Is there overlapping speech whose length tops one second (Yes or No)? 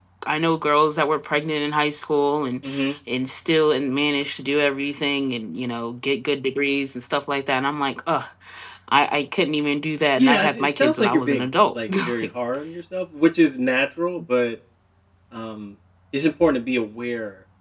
Yes